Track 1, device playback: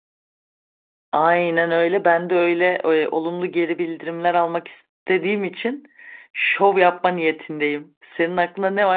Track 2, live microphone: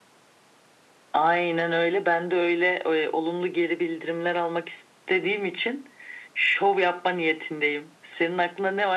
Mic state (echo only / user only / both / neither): echo only